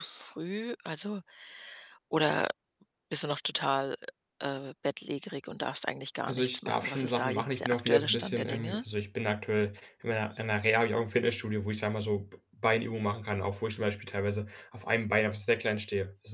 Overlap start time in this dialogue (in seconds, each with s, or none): 6.3 s